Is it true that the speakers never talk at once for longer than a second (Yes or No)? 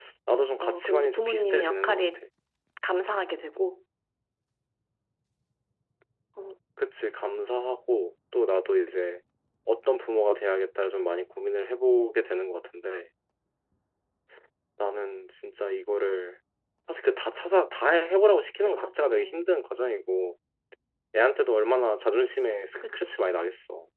No